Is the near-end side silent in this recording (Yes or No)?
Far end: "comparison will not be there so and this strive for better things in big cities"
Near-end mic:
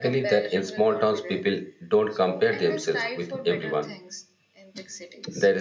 No